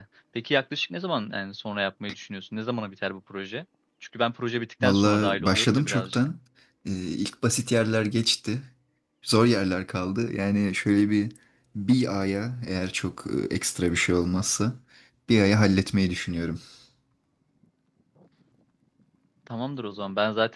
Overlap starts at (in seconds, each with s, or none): 4.8 s